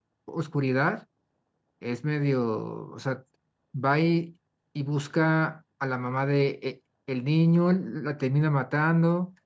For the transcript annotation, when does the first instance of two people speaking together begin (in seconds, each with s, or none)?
none